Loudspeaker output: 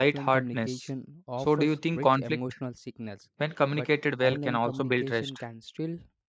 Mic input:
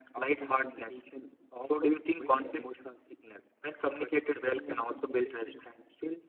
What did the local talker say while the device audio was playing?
none

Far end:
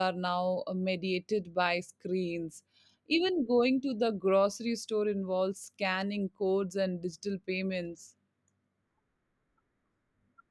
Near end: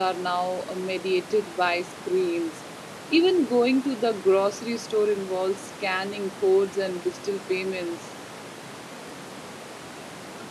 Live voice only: none

